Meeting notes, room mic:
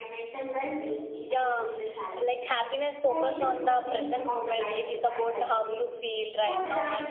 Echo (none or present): present